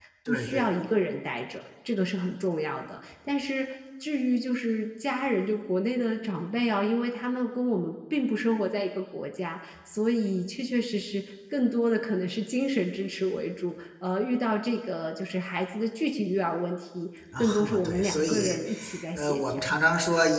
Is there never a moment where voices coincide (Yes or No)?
No